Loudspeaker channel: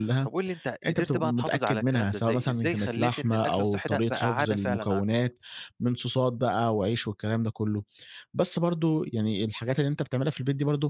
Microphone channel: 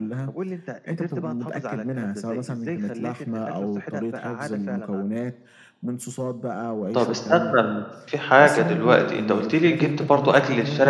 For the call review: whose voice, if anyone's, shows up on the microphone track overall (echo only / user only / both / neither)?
both